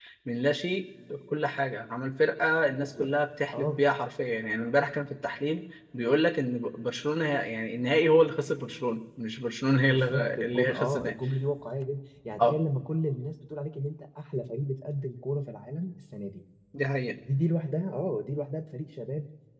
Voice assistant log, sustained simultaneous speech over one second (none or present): present